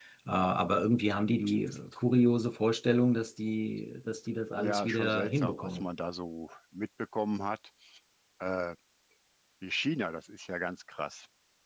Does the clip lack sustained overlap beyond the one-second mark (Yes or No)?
No